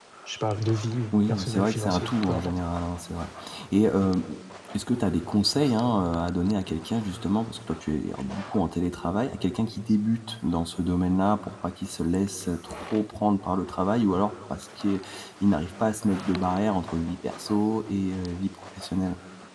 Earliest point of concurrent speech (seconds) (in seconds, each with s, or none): 1.1 s